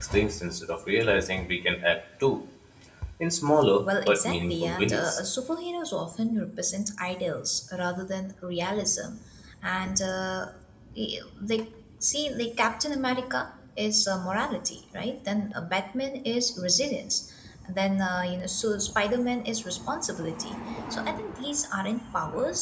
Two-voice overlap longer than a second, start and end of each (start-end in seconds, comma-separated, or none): 3.8-5.2